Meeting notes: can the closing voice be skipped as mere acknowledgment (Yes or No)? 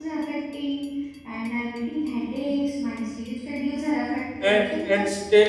No